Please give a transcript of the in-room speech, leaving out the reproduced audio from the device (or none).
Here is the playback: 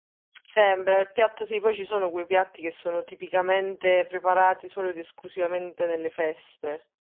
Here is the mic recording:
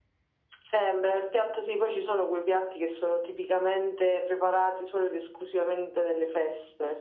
none